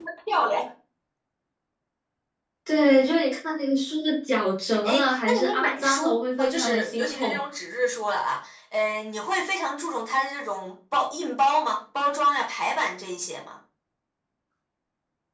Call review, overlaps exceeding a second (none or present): present